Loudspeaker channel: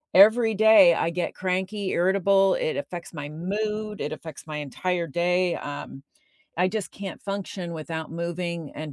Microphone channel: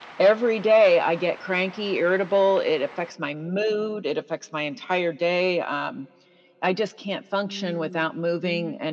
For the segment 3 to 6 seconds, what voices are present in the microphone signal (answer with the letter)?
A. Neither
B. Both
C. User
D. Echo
D